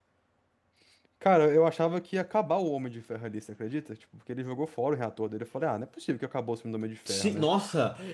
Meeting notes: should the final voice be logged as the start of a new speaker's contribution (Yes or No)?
Yes